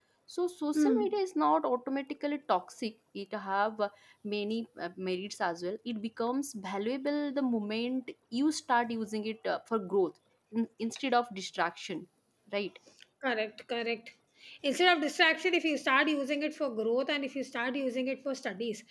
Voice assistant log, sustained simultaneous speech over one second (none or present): none